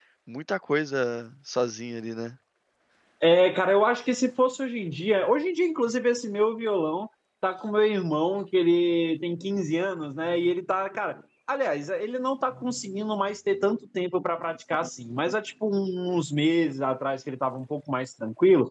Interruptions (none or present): none